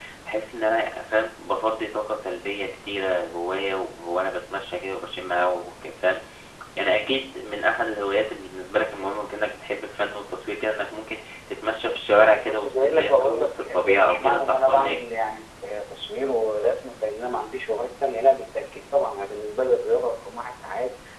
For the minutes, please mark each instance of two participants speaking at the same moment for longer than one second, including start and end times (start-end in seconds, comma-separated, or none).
12.5-15.0